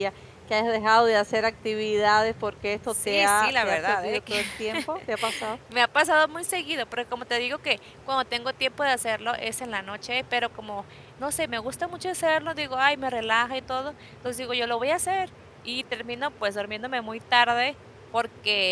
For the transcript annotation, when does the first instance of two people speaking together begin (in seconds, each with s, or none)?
2.9 s